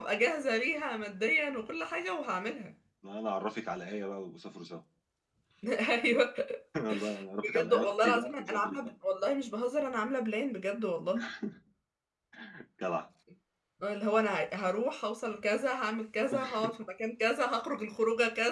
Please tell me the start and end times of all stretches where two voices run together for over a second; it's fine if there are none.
7.4-8.9

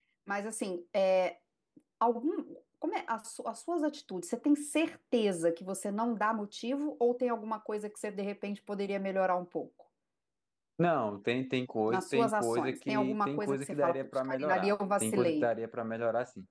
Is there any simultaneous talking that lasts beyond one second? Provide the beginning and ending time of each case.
11.9-15.5

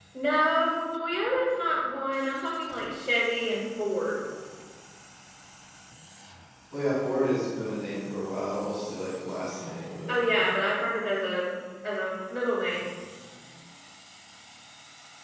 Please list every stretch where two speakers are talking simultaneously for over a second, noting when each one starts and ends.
none

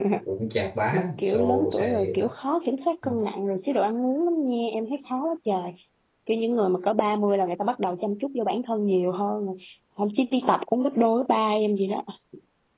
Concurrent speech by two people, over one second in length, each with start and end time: 0.9-2.2

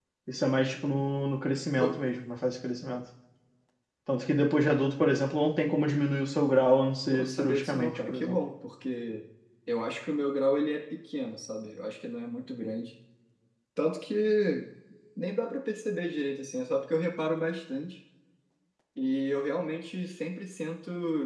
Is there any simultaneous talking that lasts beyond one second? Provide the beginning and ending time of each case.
7.1-8.4

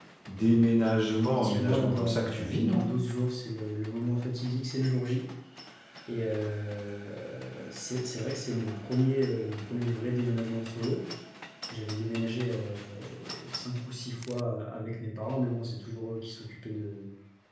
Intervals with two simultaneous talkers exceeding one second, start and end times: 1.3-2.8

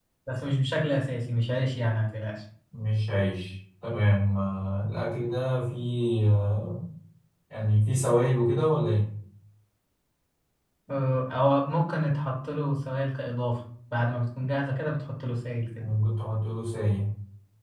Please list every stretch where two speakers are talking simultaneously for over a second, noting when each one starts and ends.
none

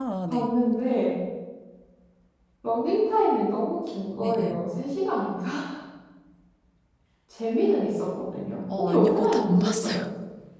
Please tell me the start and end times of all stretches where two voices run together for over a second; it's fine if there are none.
8.8-10.0

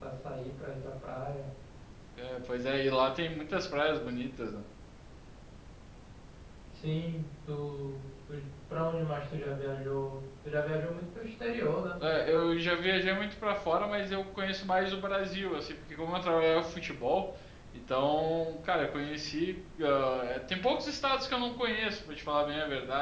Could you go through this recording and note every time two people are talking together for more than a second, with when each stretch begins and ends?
none

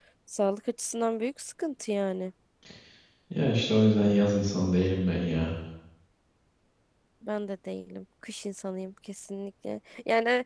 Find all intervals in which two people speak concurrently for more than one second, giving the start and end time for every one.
none

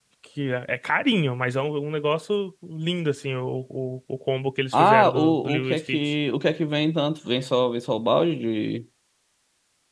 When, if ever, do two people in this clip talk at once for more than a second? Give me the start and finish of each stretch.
4.7-6.0

